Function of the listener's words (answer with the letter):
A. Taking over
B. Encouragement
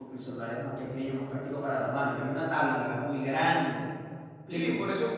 A